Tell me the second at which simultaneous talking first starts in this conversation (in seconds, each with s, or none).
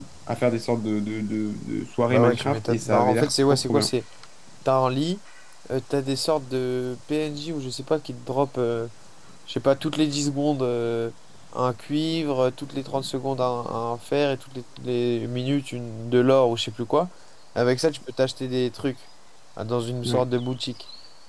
2.1 s